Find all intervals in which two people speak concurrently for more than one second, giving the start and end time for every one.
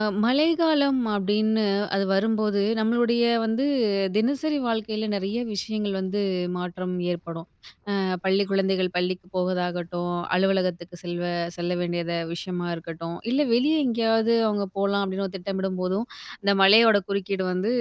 none

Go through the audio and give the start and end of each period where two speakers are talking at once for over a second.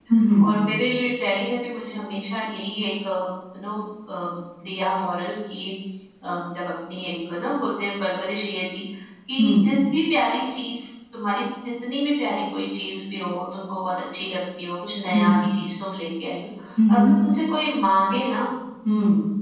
none

